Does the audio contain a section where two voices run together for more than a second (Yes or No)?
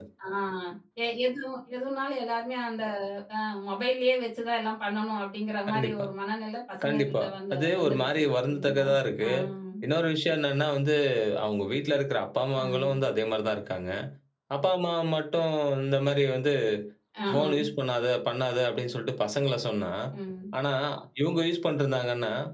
Yes